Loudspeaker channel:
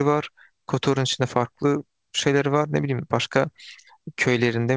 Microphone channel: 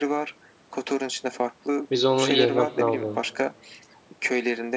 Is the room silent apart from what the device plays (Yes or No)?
No